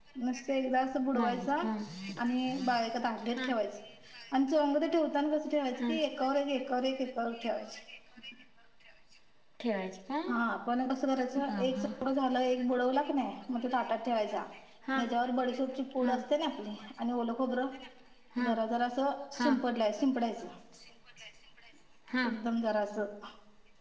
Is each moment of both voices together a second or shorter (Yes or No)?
Yes